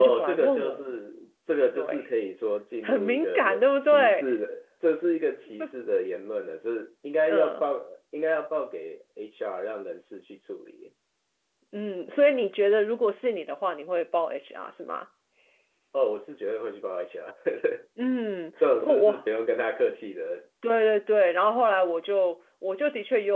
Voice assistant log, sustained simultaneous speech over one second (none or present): present